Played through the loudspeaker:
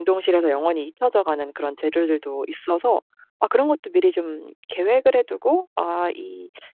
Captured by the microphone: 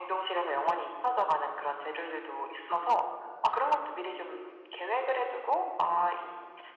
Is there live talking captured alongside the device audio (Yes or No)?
No